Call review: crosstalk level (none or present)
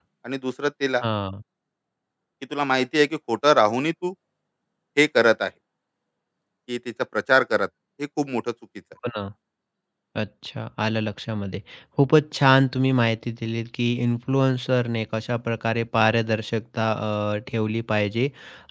none